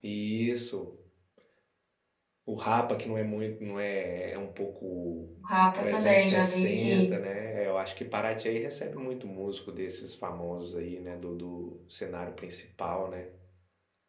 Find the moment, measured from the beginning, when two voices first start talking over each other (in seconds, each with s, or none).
5.8 s